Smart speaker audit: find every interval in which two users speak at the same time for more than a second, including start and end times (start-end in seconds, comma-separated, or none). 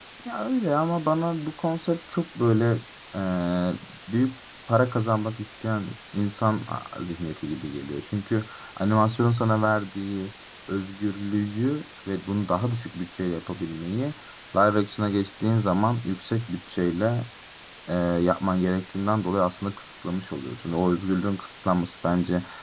none